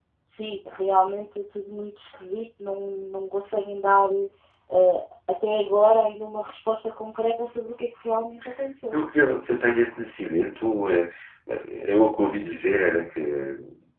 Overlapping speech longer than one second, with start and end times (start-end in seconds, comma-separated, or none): none